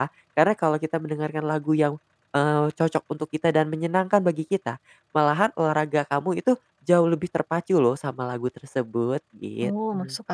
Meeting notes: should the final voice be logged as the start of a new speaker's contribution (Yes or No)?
Yes